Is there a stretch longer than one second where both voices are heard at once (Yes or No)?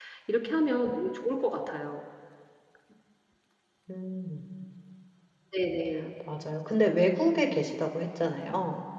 No